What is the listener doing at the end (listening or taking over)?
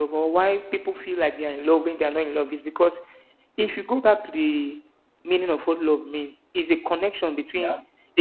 listening